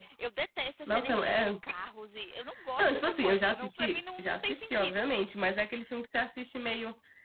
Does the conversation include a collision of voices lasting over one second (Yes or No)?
Yes